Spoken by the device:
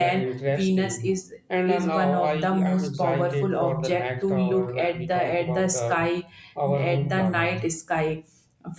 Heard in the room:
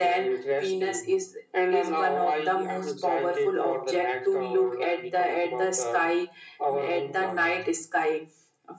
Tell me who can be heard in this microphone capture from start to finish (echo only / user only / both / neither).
echo only